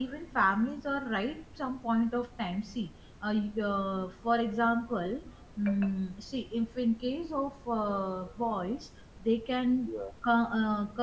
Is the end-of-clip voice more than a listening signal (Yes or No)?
No